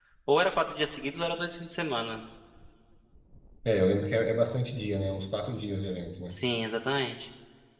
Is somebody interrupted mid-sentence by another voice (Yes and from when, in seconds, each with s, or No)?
No